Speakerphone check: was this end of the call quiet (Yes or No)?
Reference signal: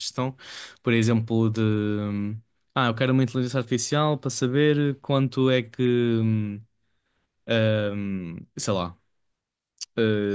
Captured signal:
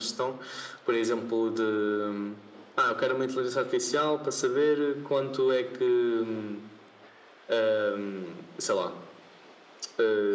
Yes